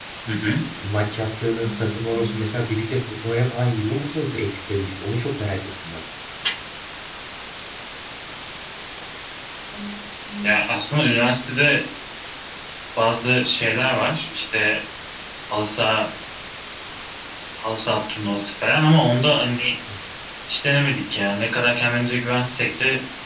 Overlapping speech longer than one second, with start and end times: none

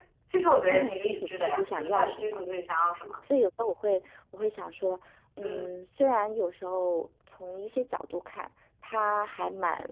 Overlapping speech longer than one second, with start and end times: 0.7-2.4

